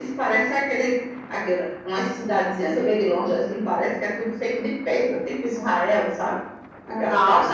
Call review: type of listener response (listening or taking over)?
taking over